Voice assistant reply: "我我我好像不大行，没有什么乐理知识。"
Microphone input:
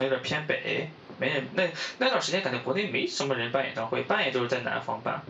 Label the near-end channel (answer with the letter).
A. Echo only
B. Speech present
B